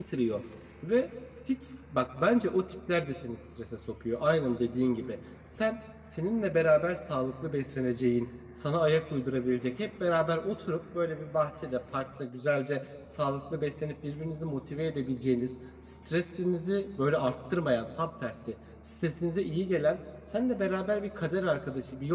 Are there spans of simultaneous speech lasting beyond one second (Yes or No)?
No